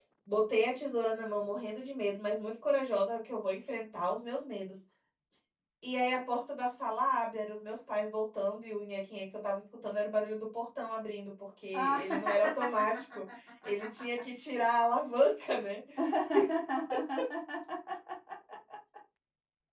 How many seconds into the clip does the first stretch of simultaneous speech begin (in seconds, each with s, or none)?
11.7 s